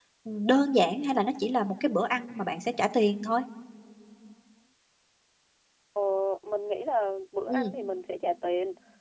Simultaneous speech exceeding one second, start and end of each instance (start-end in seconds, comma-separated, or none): none